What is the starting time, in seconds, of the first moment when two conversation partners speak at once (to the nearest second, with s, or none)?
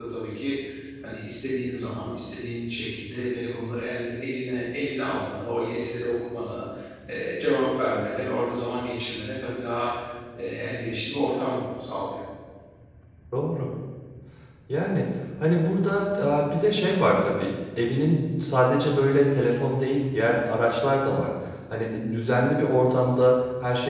none